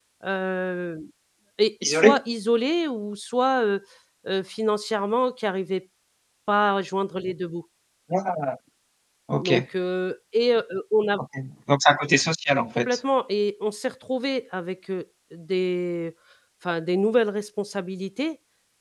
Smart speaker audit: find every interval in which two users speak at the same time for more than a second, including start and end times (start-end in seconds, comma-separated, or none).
none